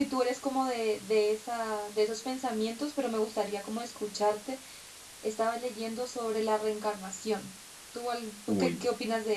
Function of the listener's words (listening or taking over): listening